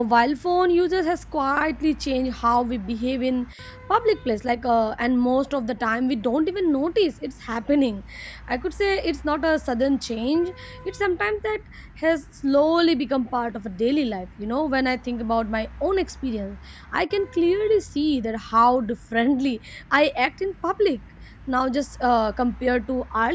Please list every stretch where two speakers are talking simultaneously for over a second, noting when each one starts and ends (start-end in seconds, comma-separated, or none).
none